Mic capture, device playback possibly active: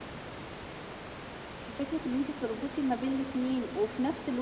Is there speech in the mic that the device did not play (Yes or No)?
Yes